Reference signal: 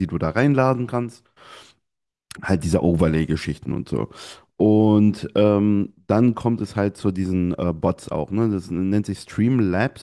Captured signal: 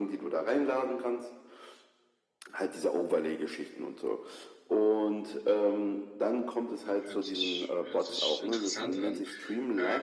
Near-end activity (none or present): present